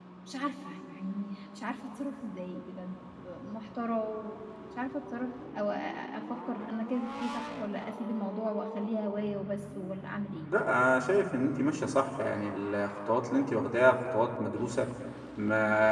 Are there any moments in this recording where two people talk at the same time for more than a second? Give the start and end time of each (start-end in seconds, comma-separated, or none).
none